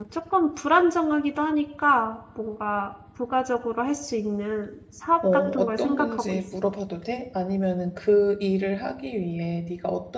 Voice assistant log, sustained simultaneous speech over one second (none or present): present